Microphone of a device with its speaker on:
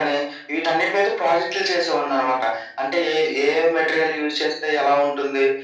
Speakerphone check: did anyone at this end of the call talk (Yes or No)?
No